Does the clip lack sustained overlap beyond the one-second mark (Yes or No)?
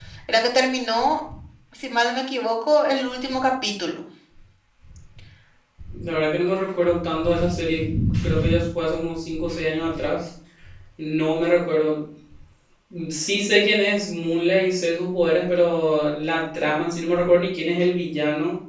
Yes